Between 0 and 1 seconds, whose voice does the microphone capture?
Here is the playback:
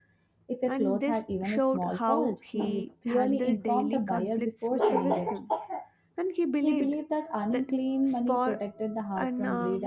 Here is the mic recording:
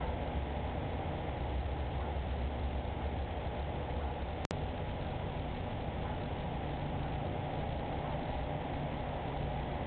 neither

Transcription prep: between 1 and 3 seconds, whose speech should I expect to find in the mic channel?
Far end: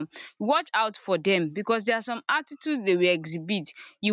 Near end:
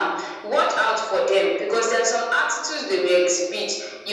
echo only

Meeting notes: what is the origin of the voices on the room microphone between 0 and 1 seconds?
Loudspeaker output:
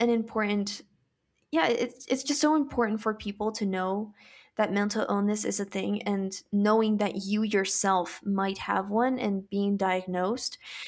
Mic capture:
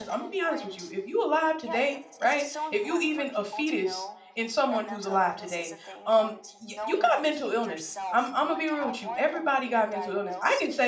both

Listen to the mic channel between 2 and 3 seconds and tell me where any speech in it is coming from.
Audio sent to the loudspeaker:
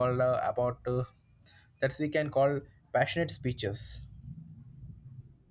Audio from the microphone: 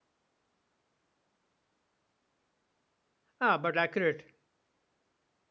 neither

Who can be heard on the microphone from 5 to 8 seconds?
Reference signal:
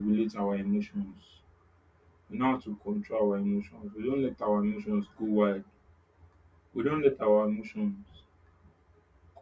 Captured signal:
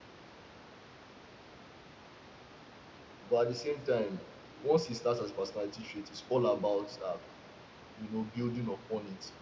user only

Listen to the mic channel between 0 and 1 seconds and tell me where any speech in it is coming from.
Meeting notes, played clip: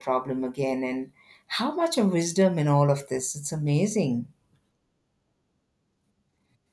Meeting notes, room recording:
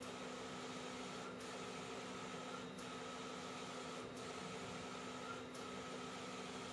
neither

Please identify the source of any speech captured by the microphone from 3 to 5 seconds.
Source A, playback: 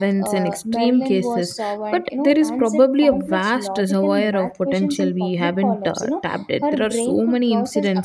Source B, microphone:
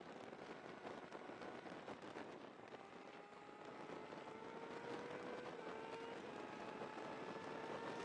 neither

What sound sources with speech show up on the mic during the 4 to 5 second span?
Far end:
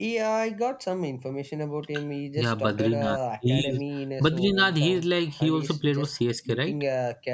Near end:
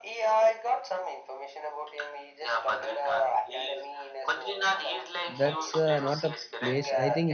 echo only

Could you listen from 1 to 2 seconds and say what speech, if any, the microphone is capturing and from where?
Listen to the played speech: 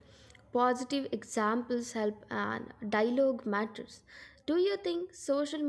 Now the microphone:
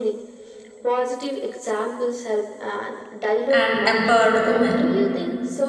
echo only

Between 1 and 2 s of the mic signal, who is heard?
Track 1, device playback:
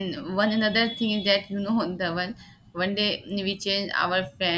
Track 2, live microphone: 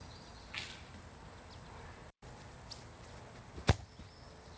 neither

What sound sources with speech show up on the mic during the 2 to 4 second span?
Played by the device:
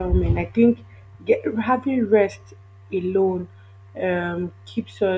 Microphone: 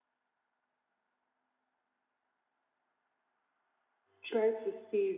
neither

